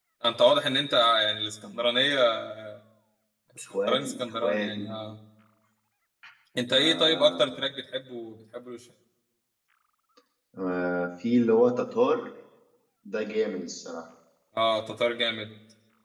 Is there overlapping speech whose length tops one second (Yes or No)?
Yes